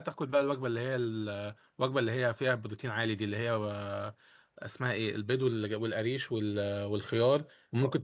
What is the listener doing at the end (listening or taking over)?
listening